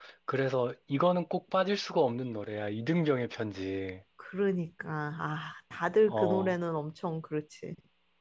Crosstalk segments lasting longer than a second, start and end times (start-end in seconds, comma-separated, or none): none